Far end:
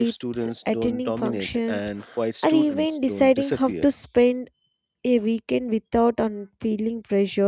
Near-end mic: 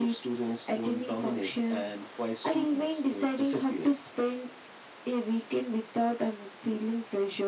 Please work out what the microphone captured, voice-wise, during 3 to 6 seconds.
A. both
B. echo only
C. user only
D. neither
B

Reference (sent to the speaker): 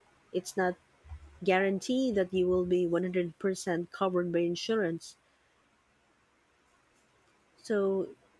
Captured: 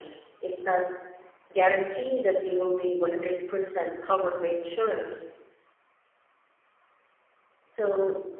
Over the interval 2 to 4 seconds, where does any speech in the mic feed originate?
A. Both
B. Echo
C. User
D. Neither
B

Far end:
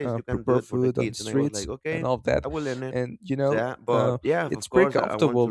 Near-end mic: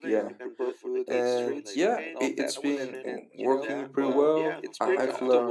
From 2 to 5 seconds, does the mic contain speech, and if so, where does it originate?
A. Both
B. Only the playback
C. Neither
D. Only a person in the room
A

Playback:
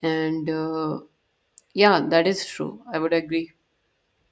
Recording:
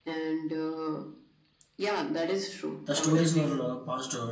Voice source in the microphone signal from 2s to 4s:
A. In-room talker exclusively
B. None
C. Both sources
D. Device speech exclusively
C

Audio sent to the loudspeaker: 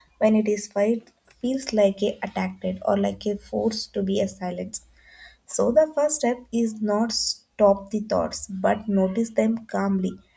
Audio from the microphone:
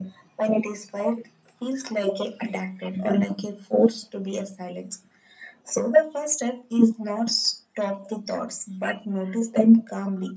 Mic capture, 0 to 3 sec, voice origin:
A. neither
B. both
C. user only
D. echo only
D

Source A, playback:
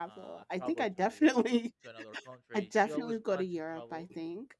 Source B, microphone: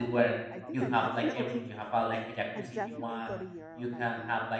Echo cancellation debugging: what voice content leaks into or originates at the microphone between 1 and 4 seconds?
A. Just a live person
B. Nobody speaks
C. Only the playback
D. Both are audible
D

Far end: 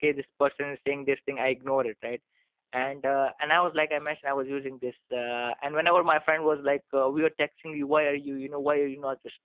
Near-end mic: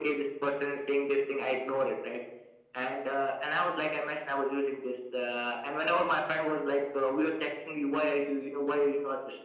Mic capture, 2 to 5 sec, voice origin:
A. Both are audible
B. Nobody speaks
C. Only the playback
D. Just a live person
C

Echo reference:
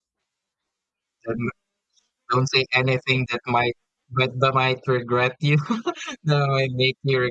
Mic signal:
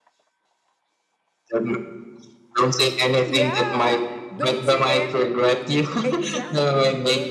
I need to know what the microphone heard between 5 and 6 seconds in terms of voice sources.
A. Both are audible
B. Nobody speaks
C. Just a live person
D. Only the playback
A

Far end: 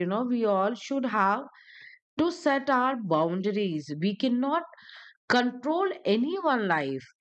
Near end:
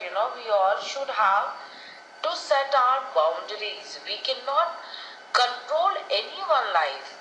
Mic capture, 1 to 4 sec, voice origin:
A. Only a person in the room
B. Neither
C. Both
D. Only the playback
D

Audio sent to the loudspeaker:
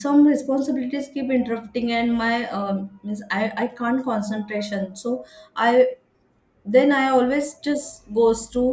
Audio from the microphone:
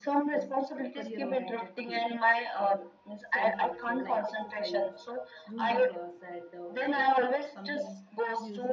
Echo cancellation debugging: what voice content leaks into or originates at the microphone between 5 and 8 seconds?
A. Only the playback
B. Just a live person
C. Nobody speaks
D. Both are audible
D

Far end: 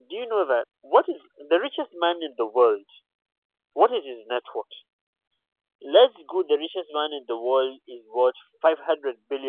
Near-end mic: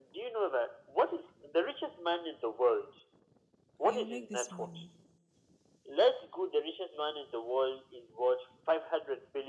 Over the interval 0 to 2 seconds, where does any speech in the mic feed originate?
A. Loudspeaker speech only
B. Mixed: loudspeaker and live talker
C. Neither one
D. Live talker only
A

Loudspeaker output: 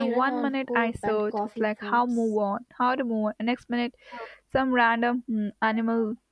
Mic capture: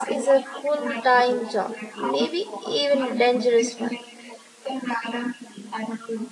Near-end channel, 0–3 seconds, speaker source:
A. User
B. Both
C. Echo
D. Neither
B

